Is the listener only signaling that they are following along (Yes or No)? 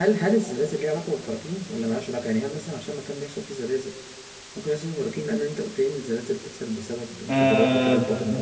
No